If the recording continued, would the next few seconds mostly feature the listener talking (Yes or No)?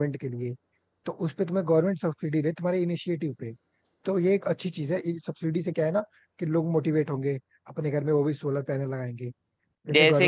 Yes